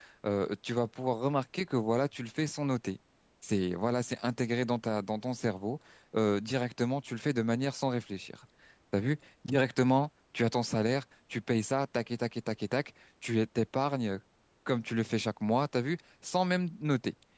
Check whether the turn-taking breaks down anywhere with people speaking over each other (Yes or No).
No